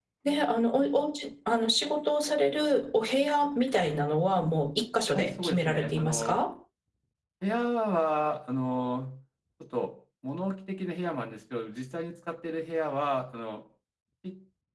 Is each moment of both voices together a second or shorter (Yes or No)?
No